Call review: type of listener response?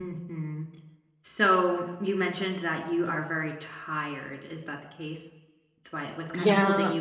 listening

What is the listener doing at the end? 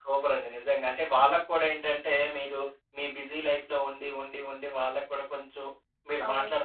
listening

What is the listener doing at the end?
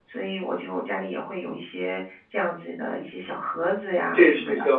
taking over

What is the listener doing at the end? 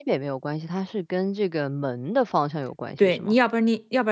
taking over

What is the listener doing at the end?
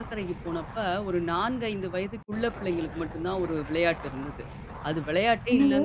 listening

